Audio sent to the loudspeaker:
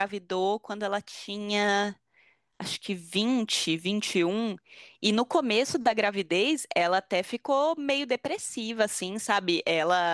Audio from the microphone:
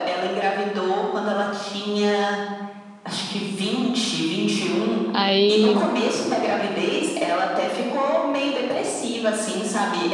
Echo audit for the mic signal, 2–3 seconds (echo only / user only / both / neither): echo only